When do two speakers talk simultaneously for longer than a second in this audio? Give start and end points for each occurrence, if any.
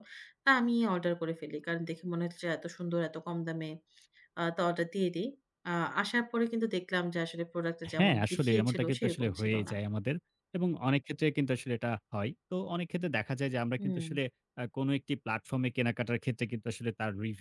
8.0-9.7

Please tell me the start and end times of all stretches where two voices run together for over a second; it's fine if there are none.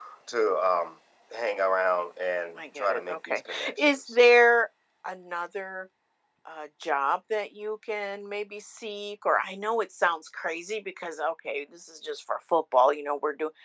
2.8-4.2

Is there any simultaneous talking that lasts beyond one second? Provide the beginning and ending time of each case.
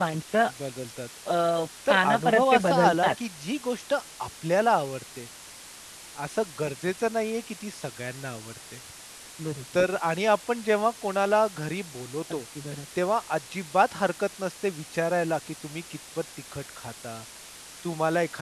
1.9-3.1

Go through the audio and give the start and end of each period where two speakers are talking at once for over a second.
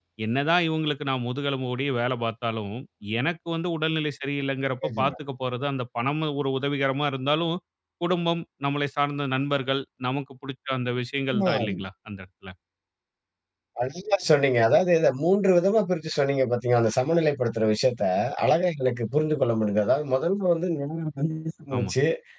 none

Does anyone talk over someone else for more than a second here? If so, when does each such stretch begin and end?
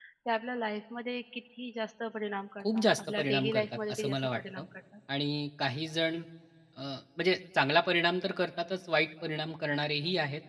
2.6-4.6

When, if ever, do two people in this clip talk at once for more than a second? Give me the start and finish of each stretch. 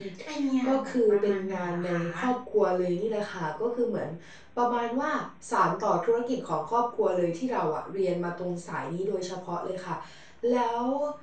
0.7-2.3

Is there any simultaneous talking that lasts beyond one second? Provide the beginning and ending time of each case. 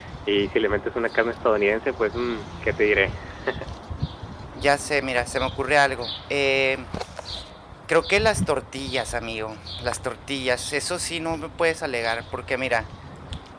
none

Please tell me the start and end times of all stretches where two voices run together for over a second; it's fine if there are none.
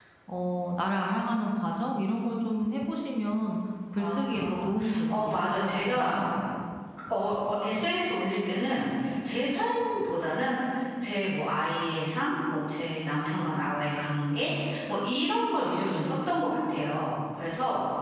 4.0-6.2

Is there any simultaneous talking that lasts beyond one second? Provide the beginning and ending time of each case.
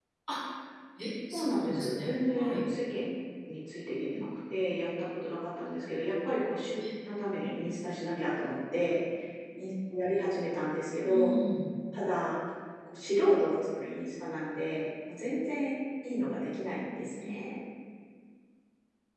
1.3-2.6

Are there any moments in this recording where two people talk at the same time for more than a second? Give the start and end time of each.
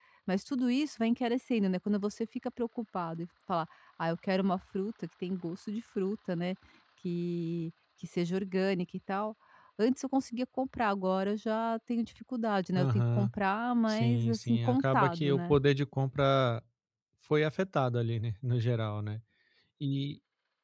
13.9-15.6

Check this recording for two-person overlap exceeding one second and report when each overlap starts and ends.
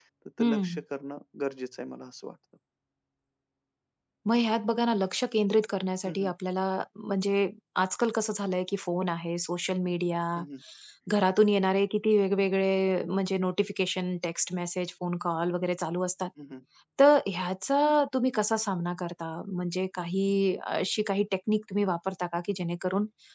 none

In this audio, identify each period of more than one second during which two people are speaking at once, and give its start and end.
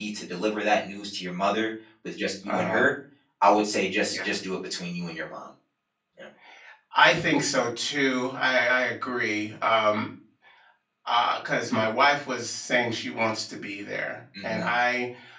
none

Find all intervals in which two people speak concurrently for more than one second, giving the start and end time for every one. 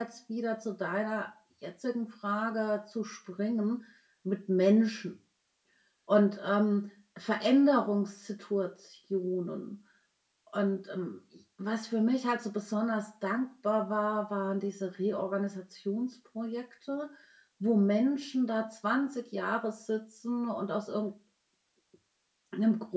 none

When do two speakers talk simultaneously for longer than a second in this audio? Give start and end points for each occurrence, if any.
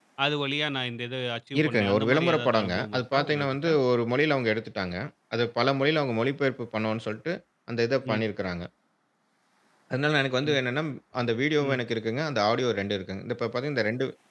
1.6-3.7

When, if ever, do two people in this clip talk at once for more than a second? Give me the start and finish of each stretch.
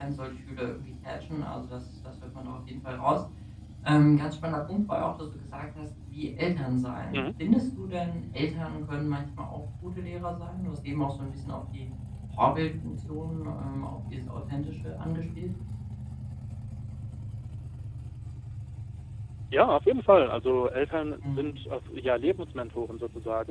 none

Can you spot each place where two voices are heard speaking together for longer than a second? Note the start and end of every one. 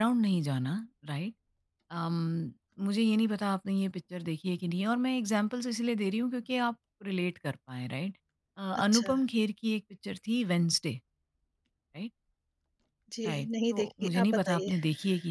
13.2-14.7

